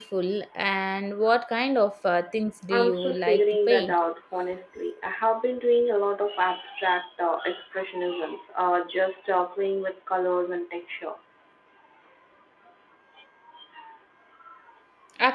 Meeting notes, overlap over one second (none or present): present